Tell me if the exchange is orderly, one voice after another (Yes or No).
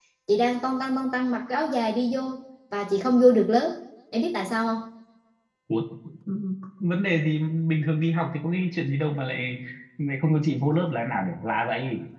Yes